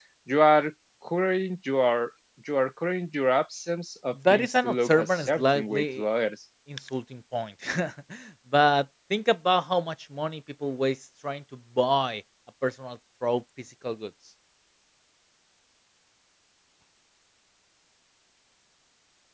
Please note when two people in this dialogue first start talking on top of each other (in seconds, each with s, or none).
4.1 s